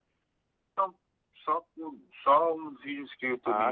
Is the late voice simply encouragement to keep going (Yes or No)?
No